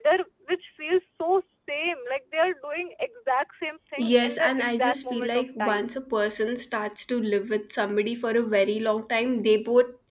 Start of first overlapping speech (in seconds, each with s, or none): 4.0 s